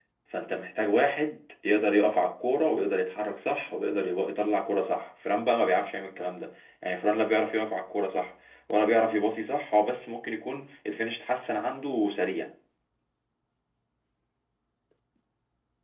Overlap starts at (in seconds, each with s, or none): none